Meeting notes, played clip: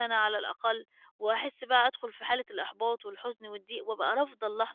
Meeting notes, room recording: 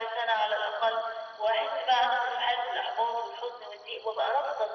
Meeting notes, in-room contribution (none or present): none